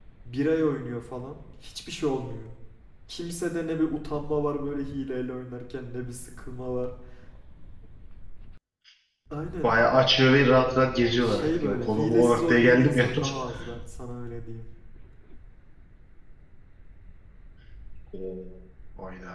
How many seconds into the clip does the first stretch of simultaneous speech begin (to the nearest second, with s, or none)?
11 s